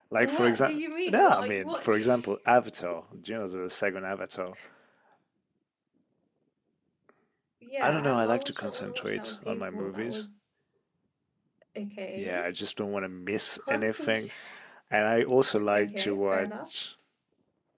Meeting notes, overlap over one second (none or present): present